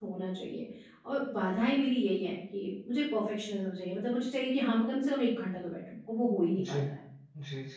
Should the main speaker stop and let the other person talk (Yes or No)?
Yes